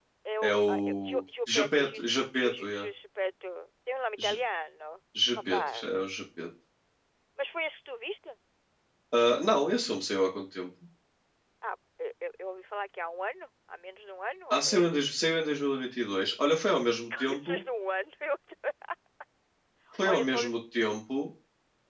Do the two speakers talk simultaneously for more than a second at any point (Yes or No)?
Yes